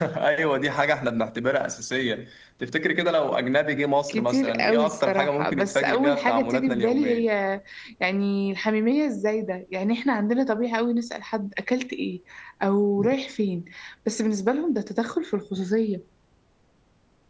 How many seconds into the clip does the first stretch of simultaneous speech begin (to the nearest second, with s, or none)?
4 s